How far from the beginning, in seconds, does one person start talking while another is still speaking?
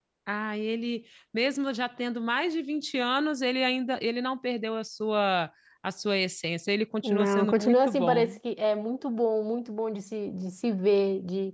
7.0 s

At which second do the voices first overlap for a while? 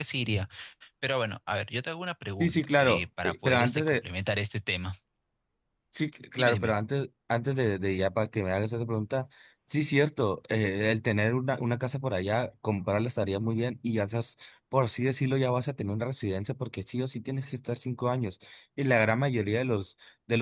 2.4 s

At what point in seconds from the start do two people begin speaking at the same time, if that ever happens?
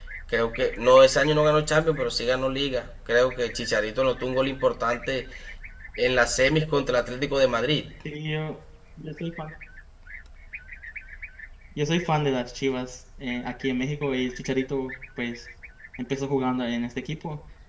none

